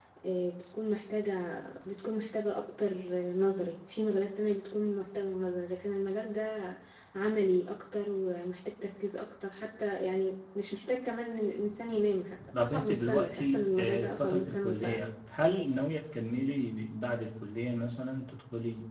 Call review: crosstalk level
present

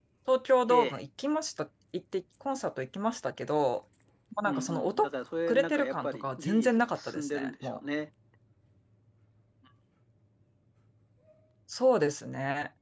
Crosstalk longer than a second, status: present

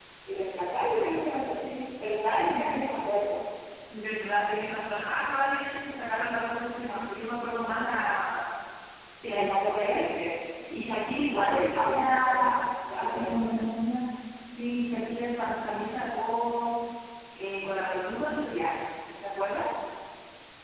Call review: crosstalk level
present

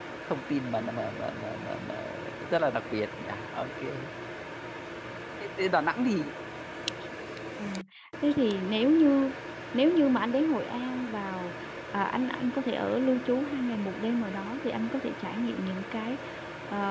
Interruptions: none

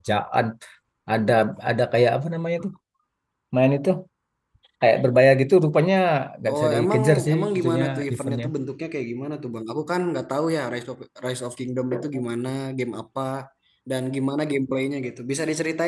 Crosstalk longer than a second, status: present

